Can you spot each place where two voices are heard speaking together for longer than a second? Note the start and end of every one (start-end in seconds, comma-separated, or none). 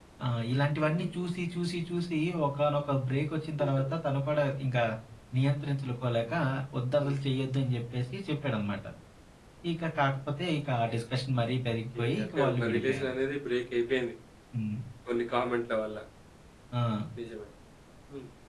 11.7-13.1